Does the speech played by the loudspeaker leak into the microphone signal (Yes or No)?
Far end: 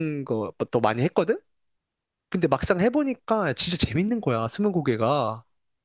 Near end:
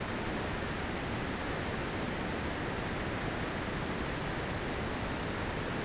No